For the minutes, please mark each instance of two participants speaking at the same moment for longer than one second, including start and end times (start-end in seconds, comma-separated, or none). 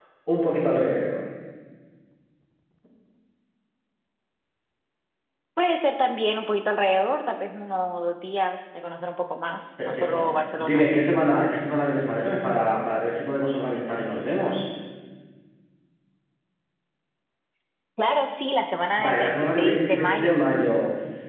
9.8-11.2, 19.0-20.4